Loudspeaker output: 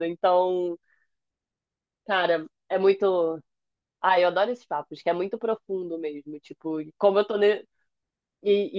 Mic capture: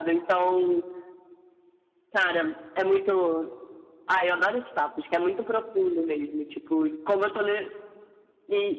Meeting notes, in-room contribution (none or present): none